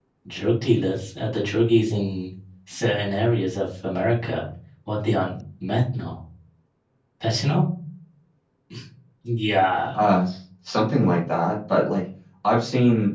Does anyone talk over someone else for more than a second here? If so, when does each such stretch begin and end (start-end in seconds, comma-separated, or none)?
none